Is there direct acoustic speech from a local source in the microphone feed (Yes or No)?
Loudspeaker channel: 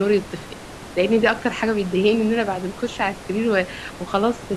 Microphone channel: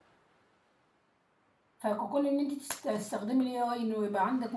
Yes